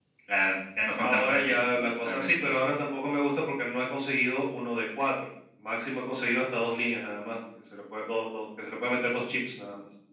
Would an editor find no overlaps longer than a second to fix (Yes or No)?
No